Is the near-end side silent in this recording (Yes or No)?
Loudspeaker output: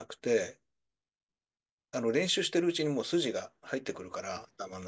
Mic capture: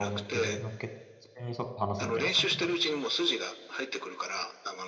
No